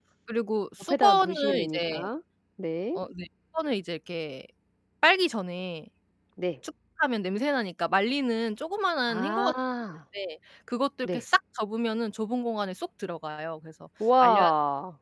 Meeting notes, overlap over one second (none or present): present